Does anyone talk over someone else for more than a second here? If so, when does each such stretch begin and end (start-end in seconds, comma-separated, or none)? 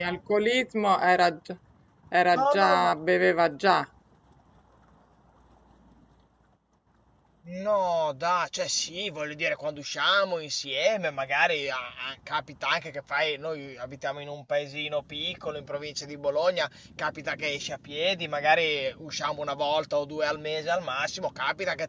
none